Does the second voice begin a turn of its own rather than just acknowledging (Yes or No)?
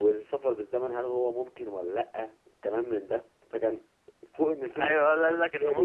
Yes